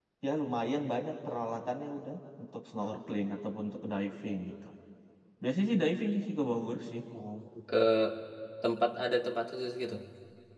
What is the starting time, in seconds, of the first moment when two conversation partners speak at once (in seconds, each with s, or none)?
none